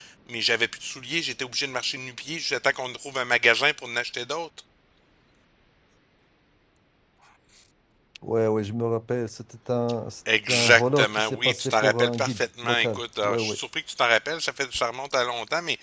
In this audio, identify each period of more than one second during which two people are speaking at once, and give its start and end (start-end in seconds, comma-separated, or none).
10.5-13.6